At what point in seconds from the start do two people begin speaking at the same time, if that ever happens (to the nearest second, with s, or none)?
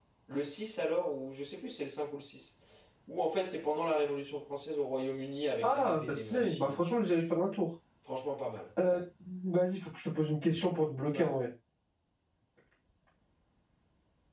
6 s